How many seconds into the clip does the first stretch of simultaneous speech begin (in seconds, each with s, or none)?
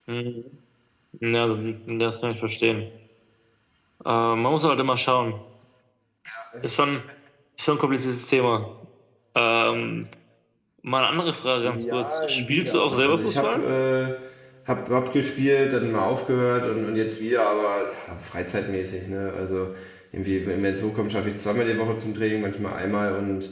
11.6 s